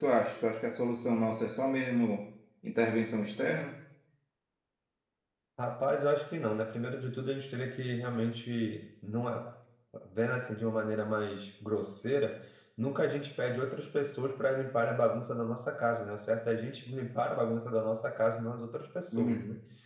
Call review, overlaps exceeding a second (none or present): none